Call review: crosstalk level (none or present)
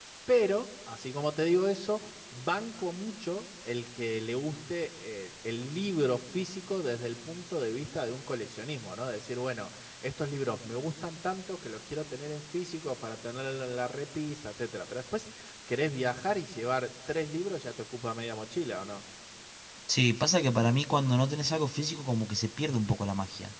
none